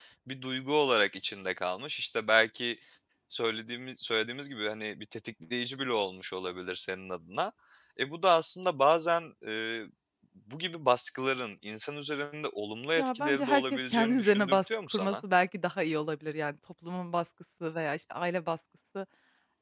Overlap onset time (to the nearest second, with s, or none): 13 s